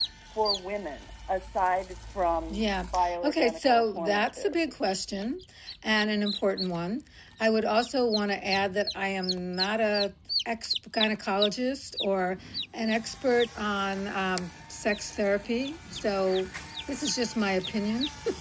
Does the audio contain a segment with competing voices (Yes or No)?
Yes